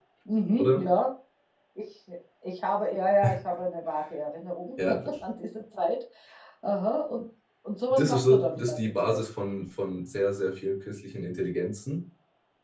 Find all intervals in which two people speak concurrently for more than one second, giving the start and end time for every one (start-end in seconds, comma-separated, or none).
7.9-9.2